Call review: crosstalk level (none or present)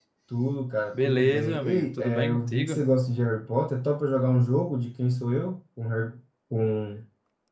present